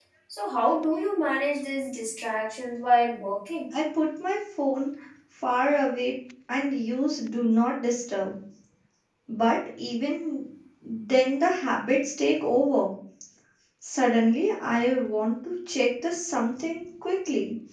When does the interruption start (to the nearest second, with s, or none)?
none